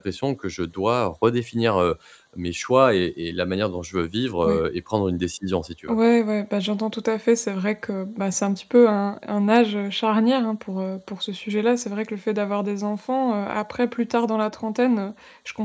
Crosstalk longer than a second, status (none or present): none